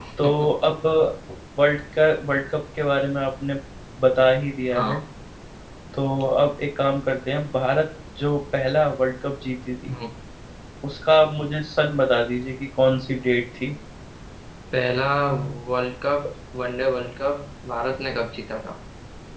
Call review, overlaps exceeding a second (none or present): none